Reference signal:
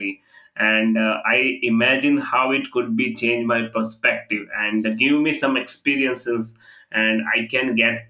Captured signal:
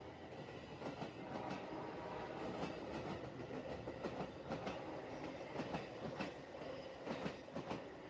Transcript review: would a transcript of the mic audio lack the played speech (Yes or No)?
Yes